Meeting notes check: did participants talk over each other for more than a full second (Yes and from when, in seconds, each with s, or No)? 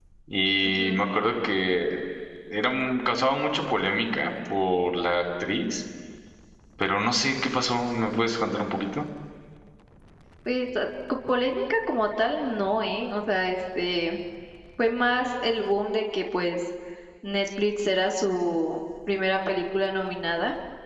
No